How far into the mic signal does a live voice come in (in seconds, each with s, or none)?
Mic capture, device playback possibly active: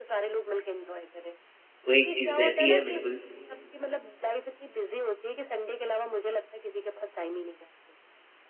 1.9 s